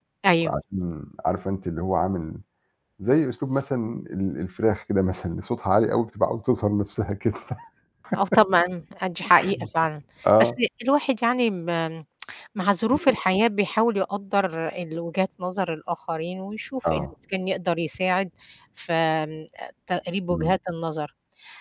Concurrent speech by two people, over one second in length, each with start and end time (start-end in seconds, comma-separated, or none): none